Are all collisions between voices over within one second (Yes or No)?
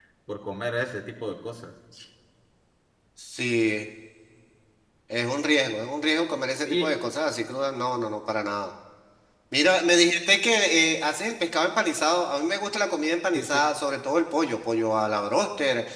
Yes